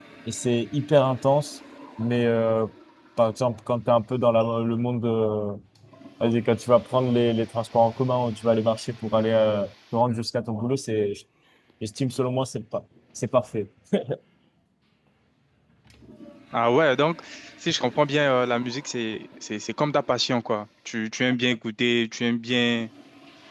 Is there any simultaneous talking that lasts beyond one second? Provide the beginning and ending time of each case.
none

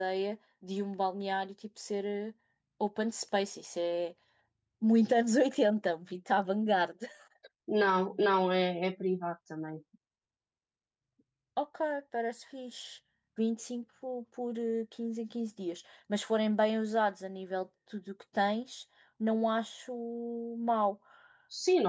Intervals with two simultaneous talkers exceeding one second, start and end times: none

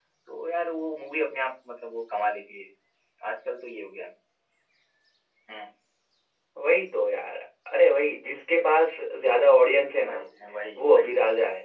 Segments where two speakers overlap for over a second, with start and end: none

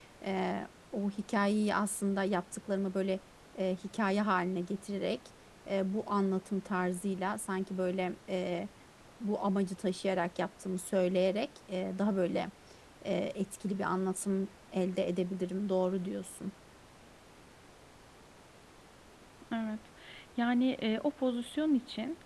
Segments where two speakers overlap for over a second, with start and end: none

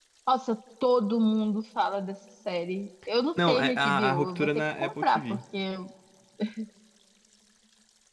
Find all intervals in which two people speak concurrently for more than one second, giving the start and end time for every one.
3.5-5.4

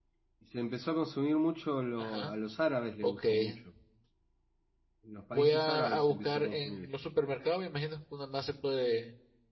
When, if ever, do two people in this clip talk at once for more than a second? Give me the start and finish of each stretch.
5.3-6.9

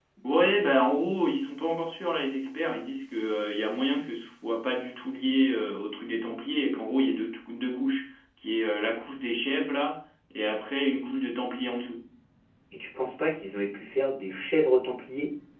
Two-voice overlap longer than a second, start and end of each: none

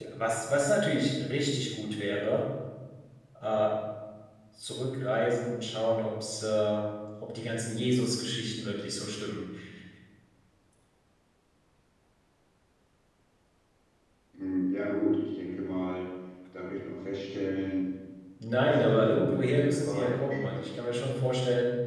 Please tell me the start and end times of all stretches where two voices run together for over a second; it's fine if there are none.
18.6-20.7

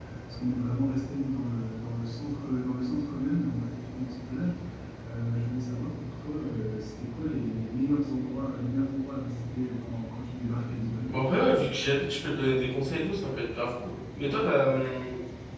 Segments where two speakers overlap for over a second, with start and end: none

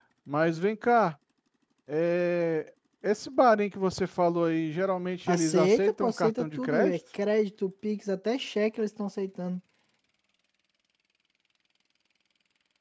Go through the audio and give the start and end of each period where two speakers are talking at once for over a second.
5.3-7.0

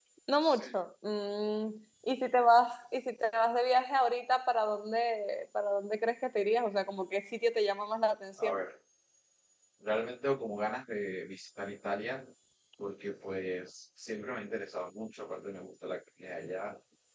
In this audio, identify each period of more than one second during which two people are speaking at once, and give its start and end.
none

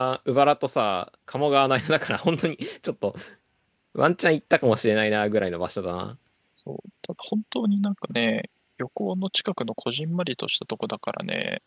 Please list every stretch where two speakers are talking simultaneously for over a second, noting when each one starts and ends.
none

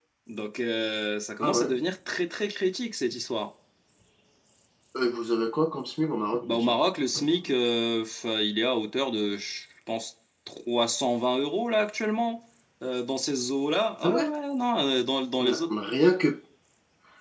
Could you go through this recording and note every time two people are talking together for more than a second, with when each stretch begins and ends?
none

